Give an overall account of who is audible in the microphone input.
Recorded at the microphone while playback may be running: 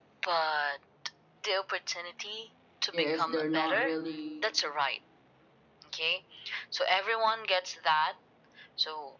both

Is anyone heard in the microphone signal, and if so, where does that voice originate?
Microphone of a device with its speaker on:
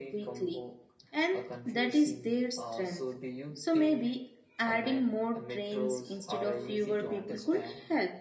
both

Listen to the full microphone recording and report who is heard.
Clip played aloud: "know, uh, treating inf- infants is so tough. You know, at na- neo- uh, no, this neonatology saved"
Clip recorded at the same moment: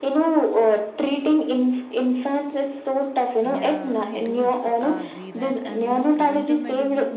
both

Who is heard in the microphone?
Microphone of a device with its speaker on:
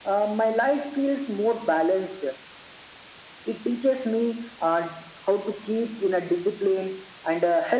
echo only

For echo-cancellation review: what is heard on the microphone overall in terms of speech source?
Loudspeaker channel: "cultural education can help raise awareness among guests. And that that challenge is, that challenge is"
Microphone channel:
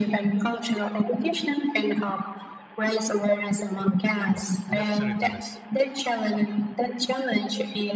both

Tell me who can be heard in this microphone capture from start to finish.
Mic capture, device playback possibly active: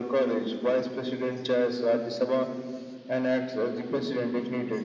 echo only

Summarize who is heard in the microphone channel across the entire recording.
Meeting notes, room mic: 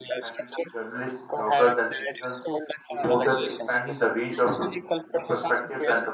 both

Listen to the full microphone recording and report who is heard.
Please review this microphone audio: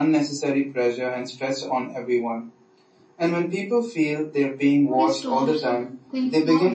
both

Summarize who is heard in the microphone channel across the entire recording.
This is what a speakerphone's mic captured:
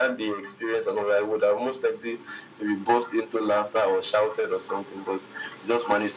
echo only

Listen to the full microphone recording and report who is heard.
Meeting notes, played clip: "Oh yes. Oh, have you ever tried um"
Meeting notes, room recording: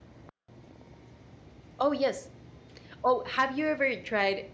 echo only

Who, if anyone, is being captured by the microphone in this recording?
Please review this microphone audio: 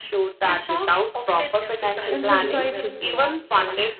both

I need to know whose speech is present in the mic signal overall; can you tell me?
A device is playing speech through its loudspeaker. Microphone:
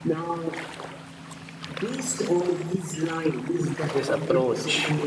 both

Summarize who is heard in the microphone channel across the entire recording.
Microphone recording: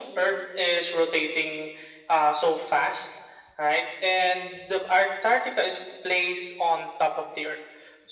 echo only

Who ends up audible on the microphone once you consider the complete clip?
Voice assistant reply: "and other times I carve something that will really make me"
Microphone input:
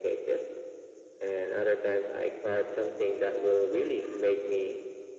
echo only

